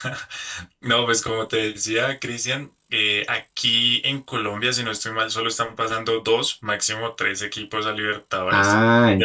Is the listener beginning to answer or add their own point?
Yes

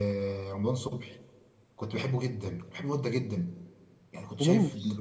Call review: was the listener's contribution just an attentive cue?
Yes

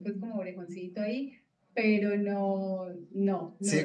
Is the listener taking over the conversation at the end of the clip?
Yes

